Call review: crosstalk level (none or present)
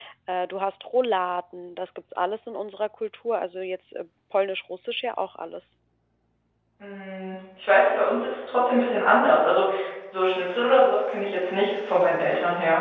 none